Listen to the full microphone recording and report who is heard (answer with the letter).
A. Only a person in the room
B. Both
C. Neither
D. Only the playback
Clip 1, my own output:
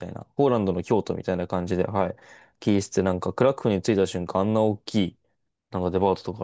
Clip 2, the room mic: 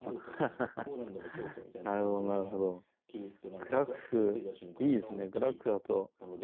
B